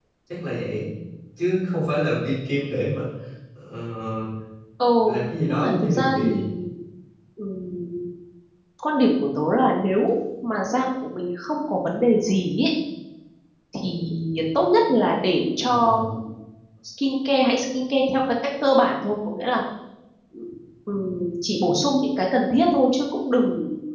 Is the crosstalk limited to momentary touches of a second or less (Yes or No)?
No